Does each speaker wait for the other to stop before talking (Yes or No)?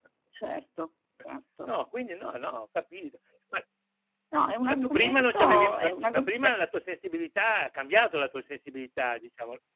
No